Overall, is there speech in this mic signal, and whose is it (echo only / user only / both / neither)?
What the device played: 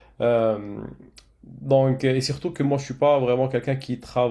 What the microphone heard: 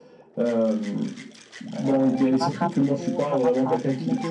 both